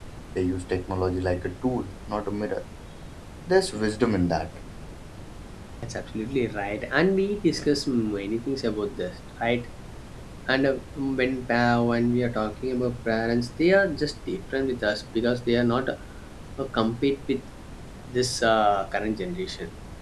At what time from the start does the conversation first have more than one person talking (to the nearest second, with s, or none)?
none